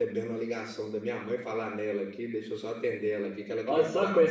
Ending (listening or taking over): taking over